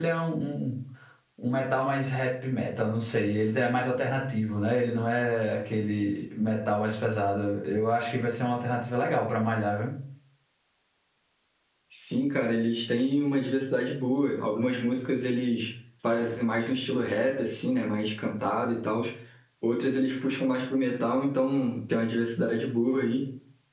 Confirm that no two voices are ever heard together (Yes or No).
Yes